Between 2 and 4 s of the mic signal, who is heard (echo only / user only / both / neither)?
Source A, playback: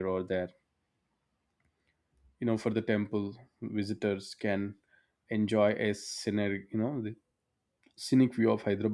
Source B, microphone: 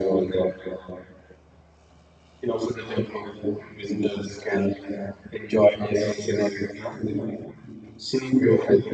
echo only